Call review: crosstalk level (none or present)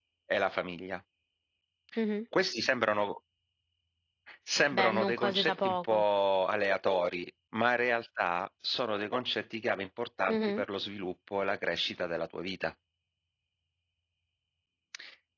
present